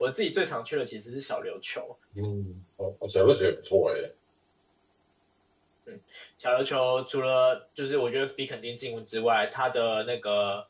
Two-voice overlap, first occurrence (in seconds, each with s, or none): none